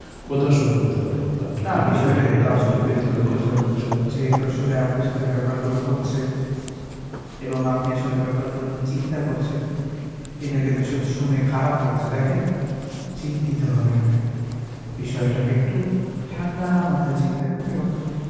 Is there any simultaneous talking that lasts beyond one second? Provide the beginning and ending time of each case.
1.6-3.7

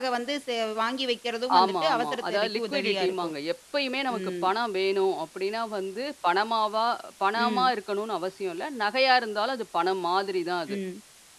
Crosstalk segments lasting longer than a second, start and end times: 1.6-3.3

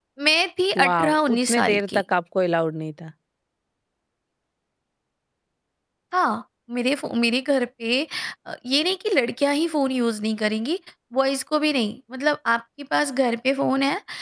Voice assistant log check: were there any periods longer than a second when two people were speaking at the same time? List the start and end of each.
0.8-2.0

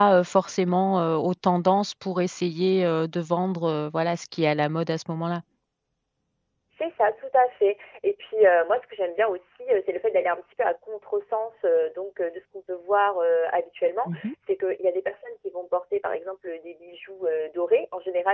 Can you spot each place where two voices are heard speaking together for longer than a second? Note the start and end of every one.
none

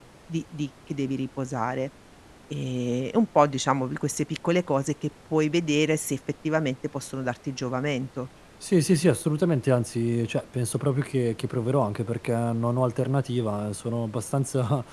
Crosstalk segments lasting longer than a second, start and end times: none

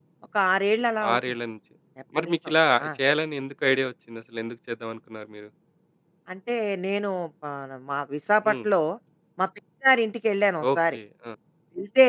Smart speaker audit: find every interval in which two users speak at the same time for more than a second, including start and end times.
none

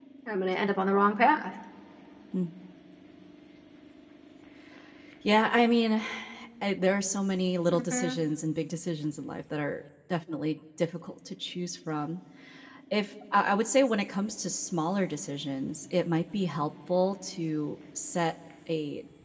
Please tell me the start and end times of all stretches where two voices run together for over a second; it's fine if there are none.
none

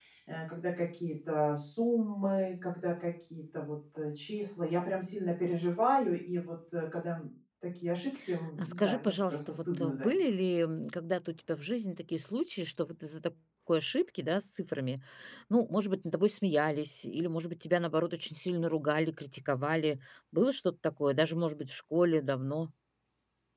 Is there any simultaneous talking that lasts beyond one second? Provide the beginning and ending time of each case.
8.6-10.2

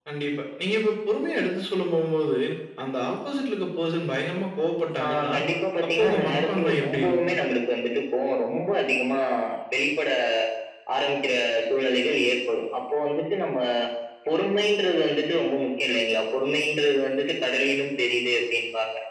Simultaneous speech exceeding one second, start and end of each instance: 5.9-7.4

